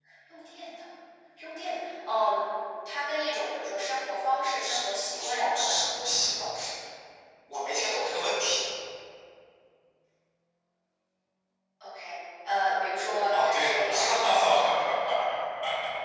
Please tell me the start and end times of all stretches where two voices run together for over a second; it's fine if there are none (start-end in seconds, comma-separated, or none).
4.6-5.9, 13.3-14.8